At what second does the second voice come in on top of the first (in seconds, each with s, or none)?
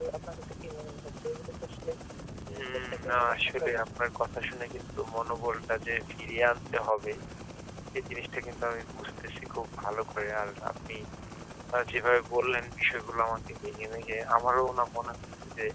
2.5 s